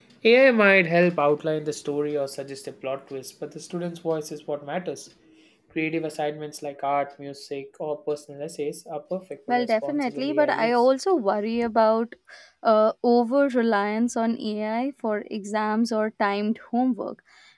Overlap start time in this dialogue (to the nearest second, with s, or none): 9 s